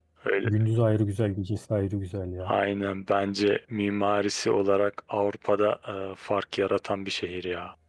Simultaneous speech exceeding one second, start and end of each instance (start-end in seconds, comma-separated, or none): none